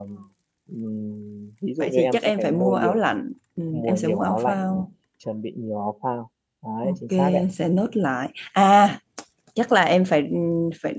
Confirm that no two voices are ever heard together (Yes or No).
No